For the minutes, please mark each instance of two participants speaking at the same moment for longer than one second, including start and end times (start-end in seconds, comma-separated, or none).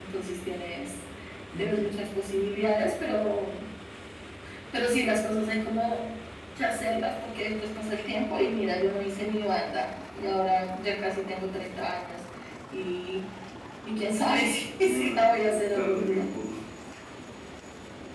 14.8-16.2